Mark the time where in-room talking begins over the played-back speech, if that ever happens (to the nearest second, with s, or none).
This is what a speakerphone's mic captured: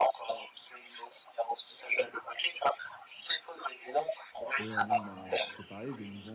5 s